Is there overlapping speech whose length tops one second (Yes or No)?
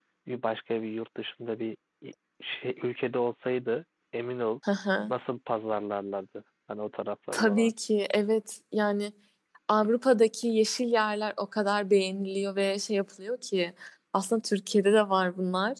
No